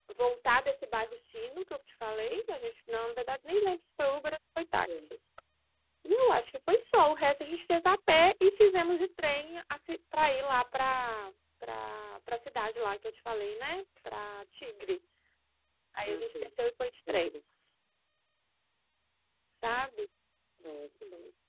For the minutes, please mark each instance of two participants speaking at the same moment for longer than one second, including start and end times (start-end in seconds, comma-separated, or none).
none